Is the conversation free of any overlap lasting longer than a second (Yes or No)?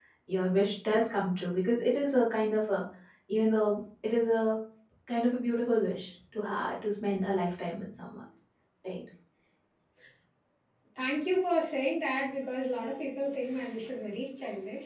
Yes